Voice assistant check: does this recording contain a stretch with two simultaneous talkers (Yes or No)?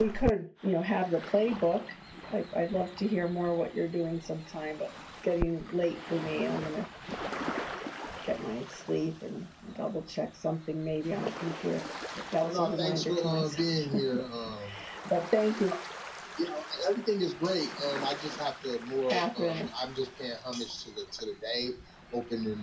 Yes